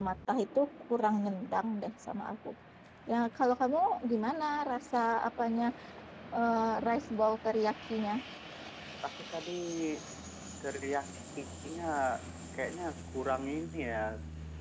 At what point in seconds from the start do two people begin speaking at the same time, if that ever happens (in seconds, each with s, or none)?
none